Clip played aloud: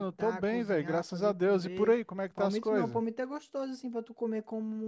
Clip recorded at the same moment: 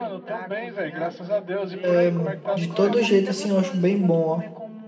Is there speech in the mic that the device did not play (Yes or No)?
Yes